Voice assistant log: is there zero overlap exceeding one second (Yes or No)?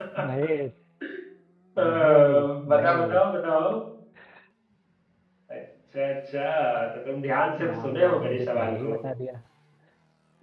No